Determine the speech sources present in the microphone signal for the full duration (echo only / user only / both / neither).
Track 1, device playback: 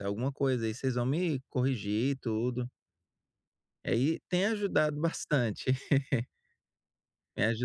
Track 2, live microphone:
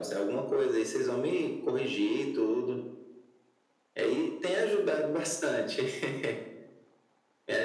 echo only